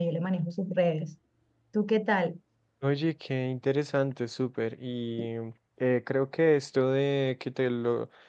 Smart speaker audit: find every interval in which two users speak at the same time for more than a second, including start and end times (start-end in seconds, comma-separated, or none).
none